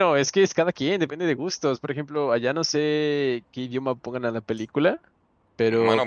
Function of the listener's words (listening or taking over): taking over